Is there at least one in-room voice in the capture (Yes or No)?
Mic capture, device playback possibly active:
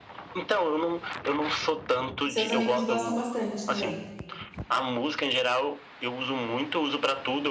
Yes